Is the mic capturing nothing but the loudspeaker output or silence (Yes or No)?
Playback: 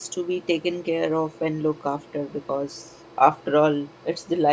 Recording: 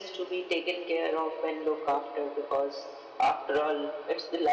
Yes